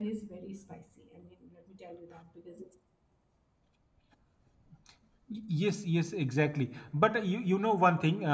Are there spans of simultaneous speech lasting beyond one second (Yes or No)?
No